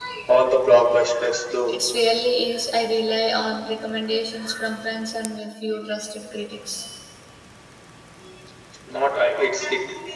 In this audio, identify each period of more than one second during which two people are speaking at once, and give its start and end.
none

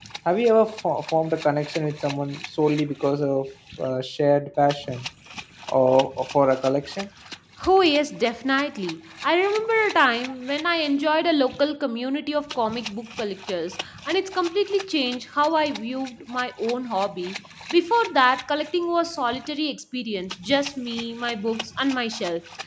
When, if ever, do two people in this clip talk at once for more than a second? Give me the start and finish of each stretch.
none

